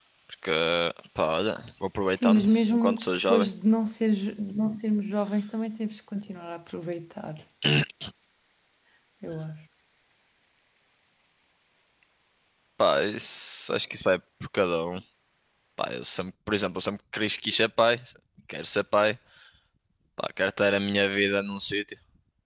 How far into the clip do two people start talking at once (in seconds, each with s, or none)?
2.2 s